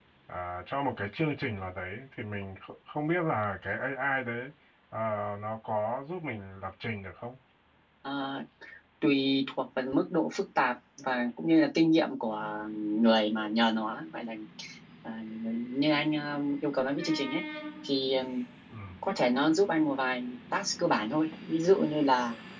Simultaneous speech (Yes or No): No